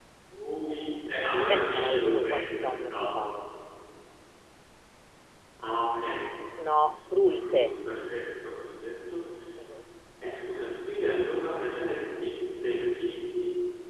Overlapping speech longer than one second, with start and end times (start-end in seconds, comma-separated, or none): 1.5-3.3